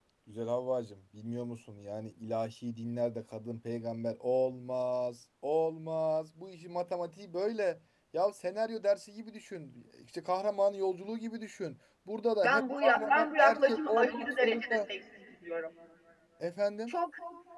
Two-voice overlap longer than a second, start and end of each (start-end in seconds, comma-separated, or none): 12.4-14.8